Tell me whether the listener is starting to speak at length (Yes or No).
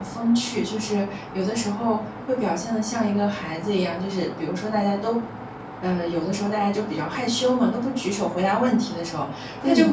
No